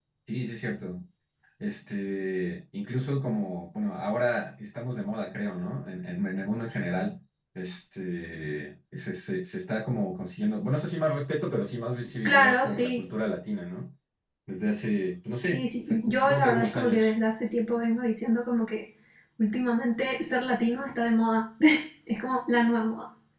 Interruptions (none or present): present